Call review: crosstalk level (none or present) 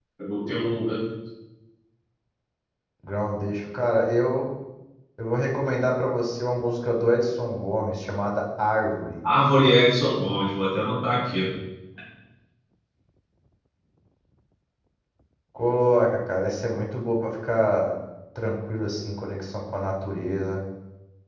none